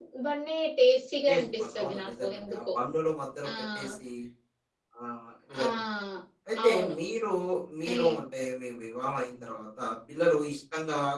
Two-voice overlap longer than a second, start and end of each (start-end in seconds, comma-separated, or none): 1.3-2.5